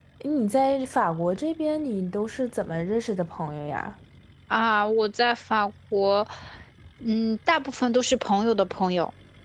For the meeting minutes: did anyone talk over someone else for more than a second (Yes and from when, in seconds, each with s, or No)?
No